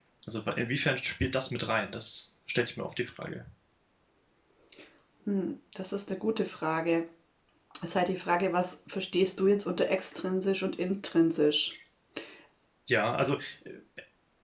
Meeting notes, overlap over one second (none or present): none